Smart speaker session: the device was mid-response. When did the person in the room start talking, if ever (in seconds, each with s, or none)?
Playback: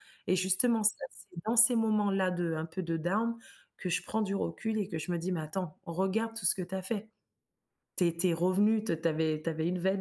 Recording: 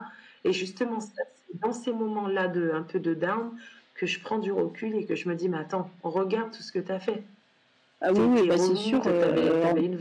8.0 s